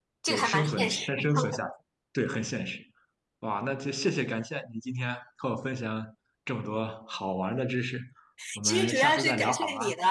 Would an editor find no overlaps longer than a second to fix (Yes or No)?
No